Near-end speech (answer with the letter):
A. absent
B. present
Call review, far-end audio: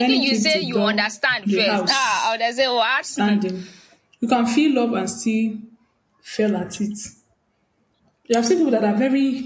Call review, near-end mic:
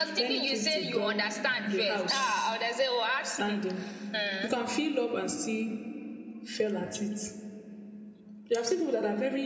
B